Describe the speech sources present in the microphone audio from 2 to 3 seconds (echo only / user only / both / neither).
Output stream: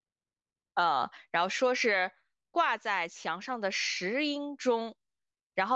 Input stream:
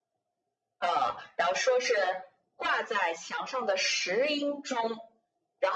echo only